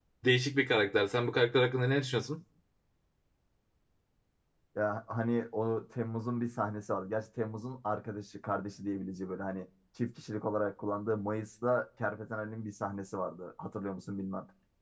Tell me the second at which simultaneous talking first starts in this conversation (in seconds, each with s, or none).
none